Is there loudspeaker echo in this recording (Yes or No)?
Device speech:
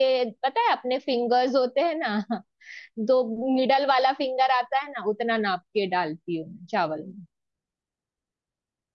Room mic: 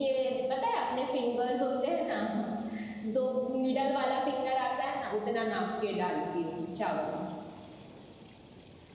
Yes